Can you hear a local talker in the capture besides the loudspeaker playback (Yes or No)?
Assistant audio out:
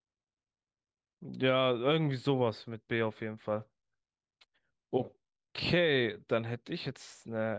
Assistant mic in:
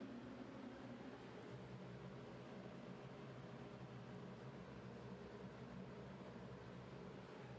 No